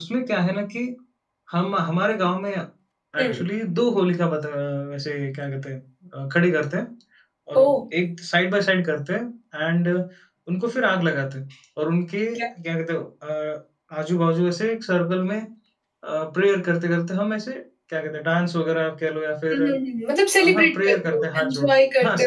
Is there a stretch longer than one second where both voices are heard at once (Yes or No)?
Yes